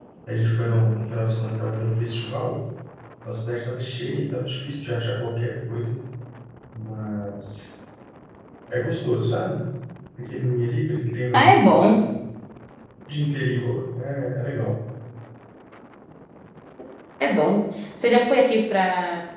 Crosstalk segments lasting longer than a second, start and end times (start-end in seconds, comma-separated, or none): none